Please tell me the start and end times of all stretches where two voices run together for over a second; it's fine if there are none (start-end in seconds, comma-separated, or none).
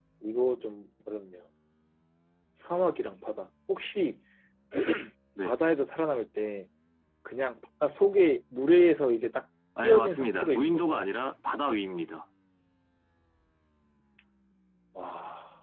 9.8-11.1